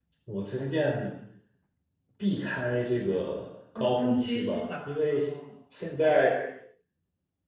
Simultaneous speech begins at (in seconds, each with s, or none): 3.8 s